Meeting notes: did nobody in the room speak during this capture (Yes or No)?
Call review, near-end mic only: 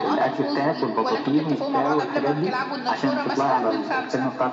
Yes